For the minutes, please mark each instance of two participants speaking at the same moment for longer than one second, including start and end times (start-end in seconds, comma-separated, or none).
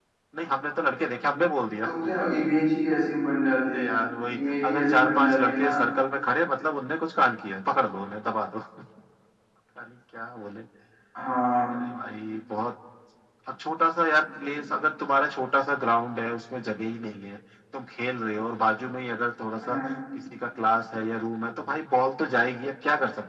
4.3-5.7